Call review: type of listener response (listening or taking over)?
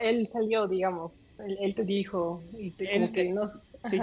taking over